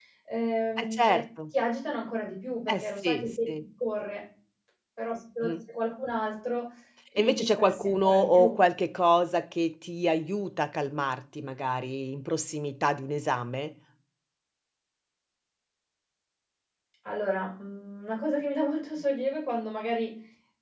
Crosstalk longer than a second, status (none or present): present